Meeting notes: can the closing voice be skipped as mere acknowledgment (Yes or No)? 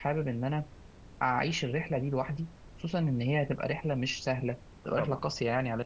Yes